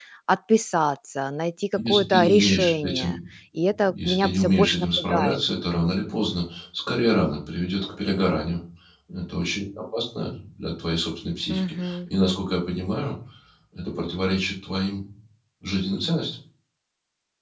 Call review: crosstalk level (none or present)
present